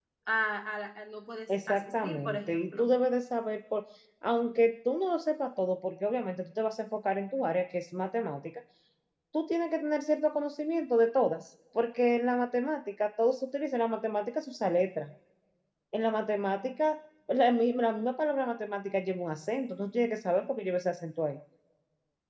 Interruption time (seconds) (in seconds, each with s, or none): 1.5 s